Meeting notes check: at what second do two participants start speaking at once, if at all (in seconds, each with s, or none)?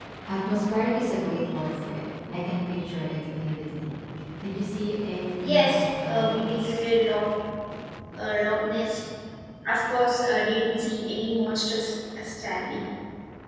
5.4 s